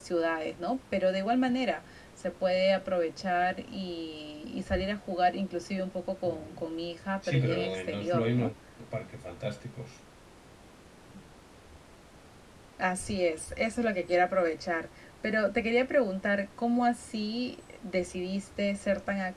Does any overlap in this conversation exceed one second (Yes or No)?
Yes